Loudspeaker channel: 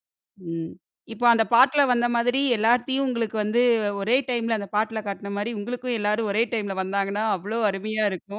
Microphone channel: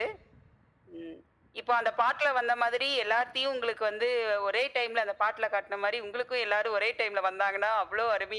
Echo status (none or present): present